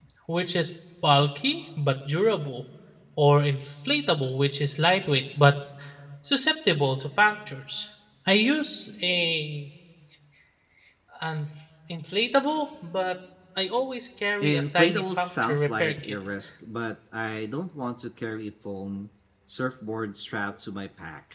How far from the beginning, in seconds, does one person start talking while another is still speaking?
14 s

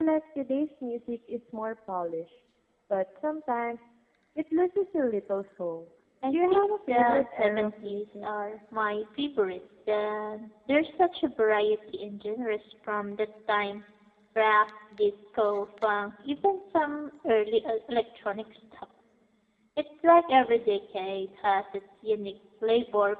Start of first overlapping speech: 6 s

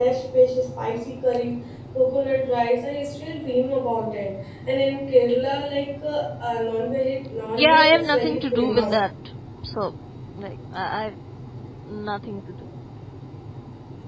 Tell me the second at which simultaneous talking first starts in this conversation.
8 s

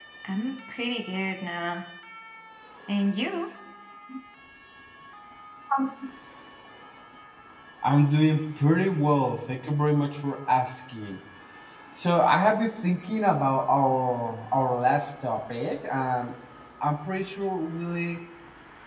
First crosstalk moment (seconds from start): none

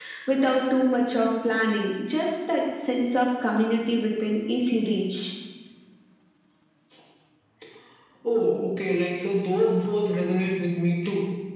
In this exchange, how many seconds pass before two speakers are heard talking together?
none

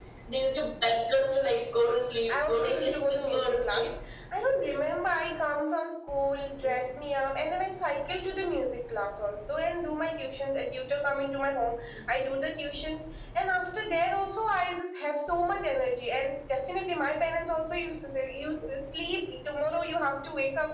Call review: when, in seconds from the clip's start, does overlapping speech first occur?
2 s

